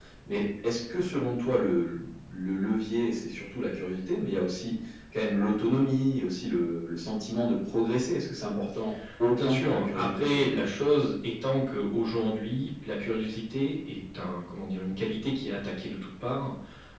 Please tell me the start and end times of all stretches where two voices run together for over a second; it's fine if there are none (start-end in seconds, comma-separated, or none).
9.3-10.6